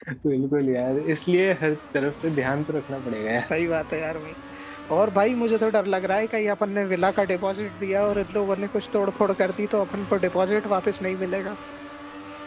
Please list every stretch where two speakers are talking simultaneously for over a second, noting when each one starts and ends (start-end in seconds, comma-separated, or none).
none